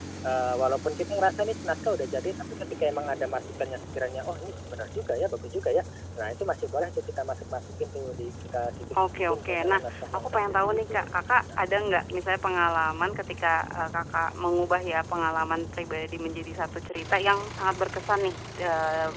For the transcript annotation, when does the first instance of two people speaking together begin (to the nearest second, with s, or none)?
9 s